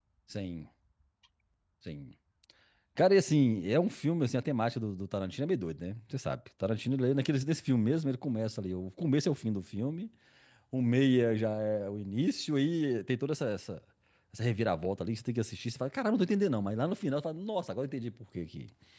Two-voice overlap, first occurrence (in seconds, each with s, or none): none